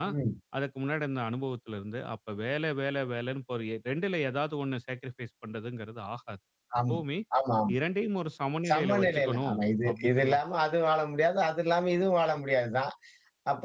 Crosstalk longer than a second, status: present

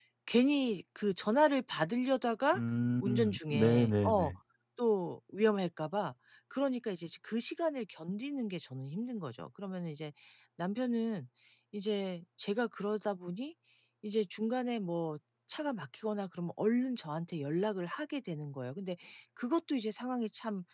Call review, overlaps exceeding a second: present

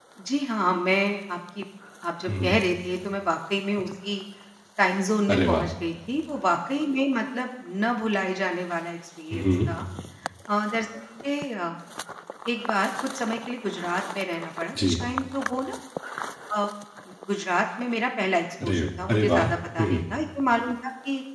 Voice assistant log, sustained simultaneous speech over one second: present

